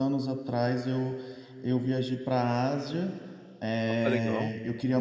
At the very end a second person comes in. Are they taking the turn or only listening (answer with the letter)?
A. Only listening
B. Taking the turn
A